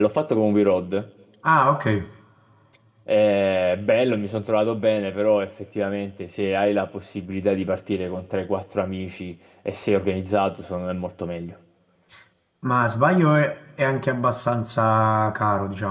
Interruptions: none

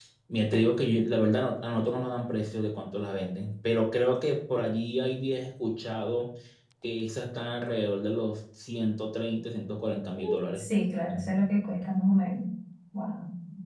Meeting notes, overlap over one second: none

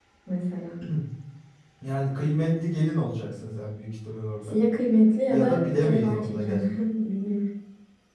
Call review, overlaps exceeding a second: present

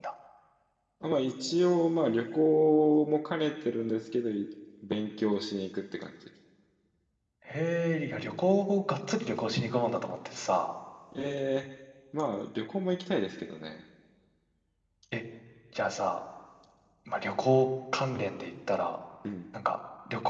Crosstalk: none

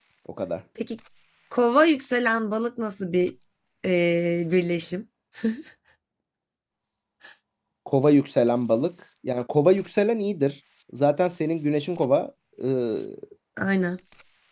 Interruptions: none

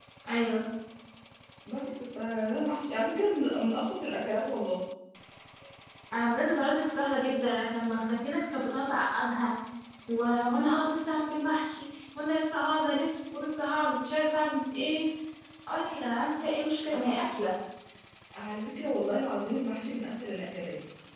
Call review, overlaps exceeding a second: none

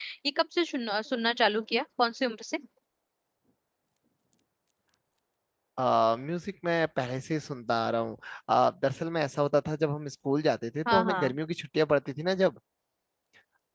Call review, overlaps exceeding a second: none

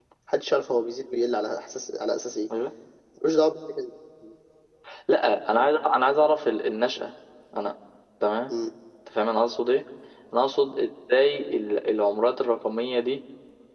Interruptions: none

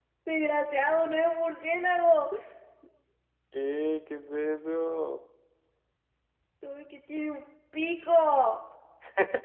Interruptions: none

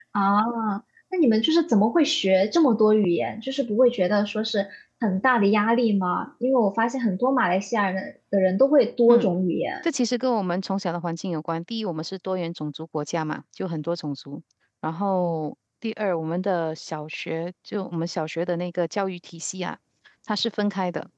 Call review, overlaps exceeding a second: none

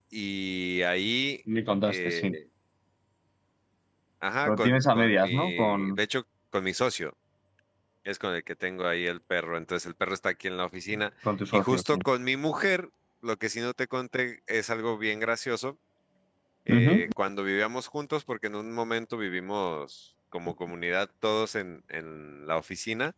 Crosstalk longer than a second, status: present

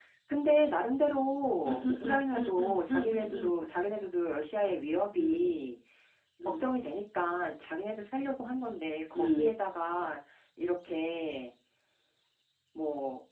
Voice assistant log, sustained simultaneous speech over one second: present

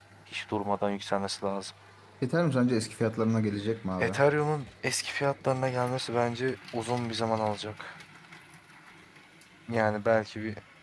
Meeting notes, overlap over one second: none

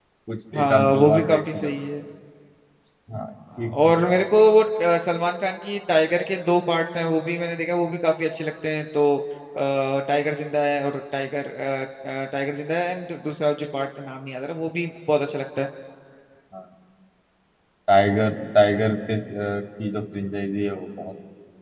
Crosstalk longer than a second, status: present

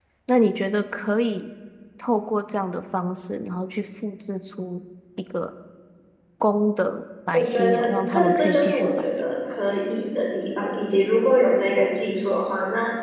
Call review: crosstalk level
present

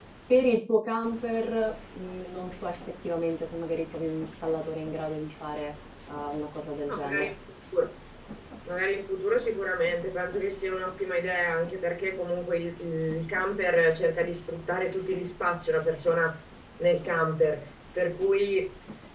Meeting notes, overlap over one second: none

